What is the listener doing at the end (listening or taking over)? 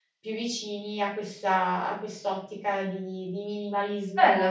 taking over